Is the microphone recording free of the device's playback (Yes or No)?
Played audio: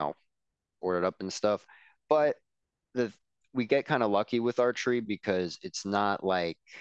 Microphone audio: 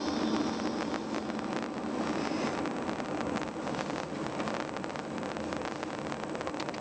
Yes